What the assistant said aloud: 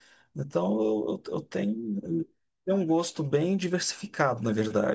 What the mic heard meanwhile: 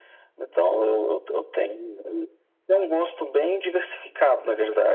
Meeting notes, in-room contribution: none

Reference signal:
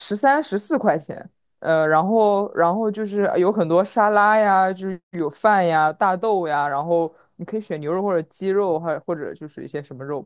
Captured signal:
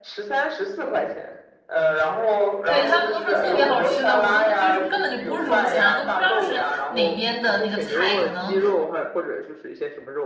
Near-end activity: present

